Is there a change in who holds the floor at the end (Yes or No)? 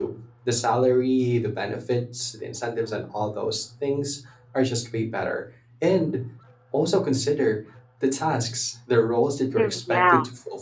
No